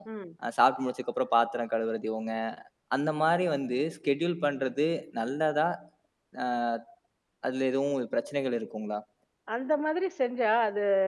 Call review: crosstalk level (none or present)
none